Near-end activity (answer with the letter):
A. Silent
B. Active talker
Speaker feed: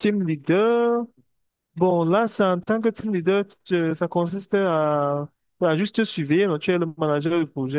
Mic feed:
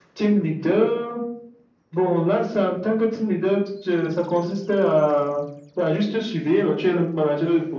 A